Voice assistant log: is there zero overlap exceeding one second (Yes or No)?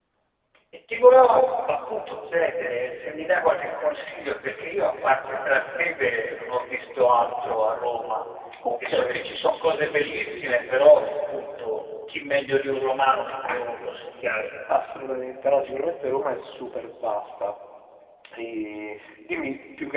Yes